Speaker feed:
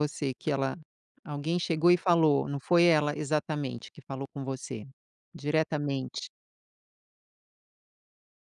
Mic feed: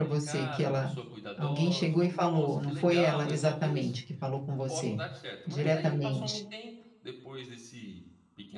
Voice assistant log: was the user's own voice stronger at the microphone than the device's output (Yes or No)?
No